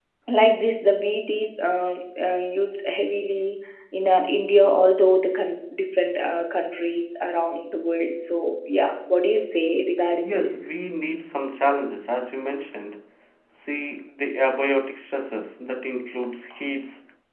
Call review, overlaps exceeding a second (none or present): none